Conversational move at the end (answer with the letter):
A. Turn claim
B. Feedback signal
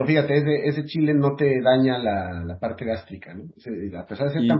A